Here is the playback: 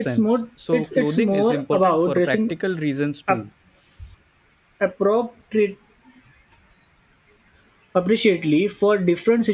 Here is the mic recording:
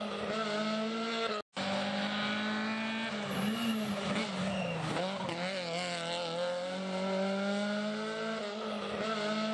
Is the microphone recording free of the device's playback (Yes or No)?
Yes